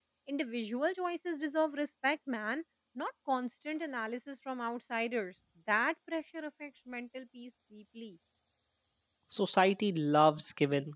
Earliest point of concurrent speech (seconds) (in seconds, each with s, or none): none